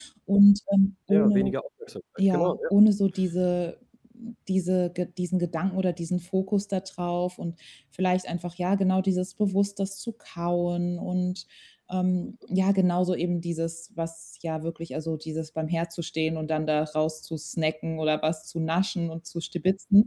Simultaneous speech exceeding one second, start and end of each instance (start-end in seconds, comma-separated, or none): none